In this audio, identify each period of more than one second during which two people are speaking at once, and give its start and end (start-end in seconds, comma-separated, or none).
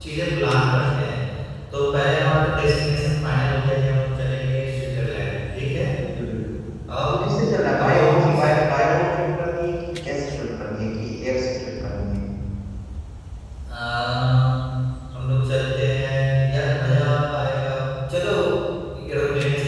7.8-9.0